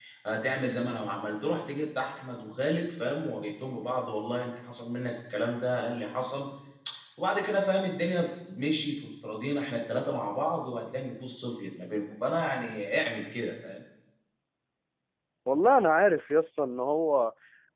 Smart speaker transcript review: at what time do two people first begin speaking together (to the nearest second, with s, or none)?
none